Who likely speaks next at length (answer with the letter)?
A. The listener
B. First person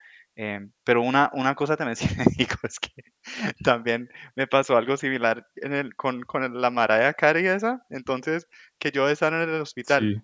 B